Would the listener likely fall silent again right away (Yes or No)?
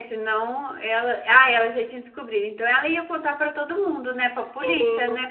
No